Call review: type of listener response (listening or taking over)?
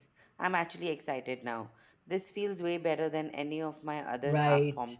taking over